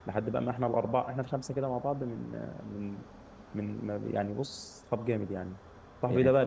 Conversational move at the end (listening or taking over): listening